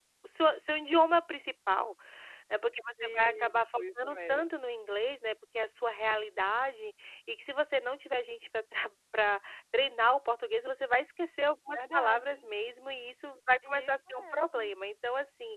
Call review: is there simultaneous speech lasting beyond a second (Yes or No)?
Yes